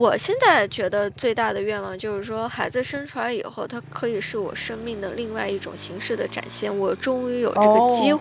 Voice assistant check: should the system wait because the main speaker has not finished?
Yes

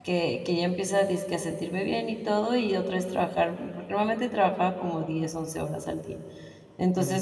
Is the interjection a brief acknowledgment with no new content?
Yes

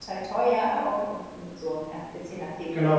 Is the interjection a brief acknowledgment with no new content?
No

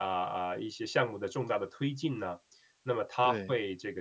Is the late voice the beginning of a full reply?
No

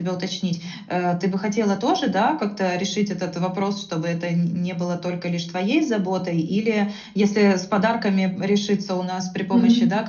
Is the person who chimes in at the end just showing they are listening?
Yes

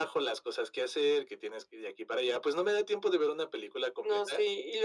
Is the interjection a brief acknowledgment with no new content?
No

